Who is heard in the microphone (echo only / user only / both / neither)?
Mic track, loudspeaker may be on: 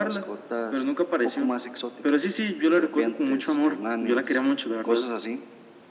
echo only